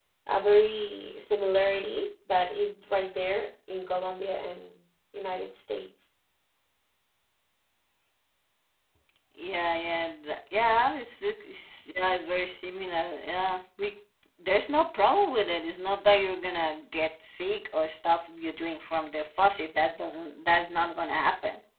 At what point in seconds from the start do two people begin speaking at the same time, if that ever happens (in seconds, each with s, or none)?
none